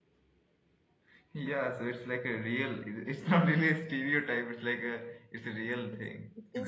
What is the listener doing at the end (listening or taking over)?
taking over